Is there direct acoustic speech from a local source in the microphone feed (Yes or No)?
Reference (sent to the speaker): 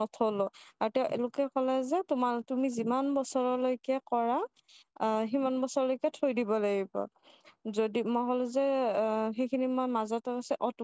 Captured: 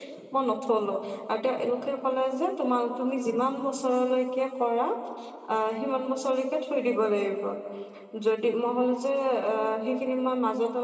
No